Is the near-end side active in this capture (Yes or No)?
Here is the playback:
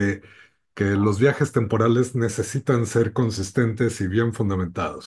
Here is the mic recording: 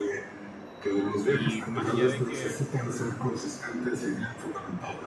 Yes